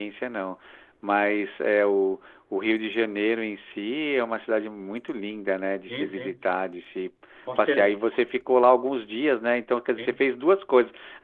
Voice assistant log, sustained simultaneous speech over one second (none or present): none